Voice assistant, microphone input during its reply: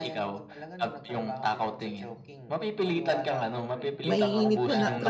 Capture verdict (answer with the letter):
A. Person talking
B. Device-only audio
A